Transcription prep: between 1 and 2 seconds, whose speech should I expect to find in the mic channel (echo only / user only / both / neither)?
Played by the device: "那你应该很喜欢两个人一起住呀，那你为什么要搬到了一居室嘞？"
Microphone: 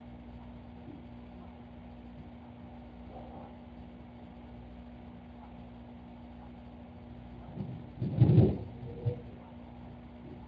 neither